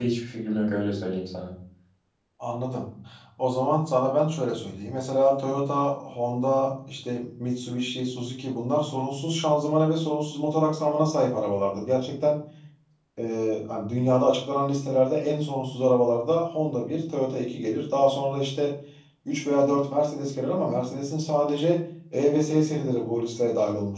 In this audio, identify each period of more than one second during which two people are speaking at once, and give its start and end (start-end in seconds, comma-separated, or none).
none